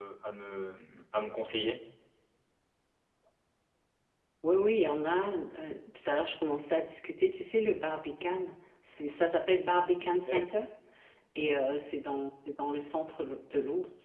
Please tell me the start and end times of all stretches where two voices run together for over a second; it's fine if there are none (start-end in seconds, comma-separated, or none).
none